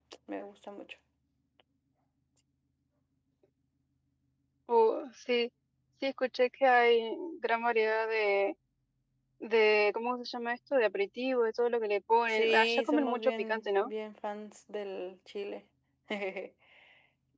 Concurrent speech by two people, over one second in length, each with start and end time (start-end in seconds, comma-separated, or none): 12.3-13.9